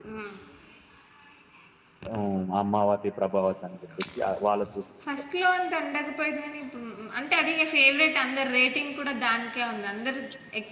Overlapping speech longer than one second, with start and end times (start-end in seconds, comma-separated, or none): none